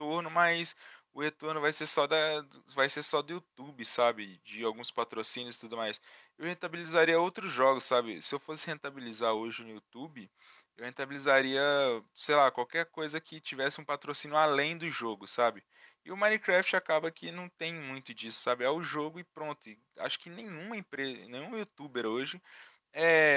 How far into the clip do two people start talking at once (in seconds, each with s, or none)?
none